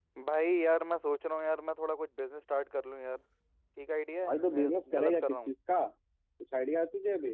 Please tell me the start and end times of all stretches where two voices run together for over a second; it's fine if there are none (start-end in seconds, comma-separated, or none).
4.2-5.5